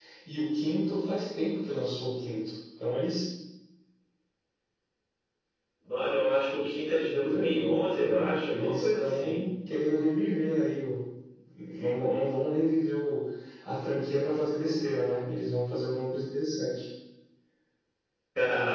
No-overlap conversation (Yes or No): No